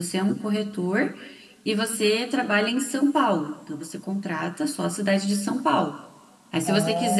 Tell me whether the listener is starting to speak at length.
No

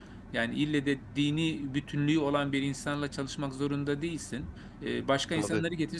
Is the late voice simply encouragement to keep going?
Yes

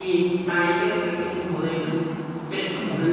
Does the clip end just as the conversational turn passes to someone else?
No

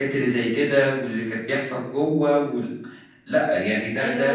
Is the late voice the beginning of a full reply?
Yes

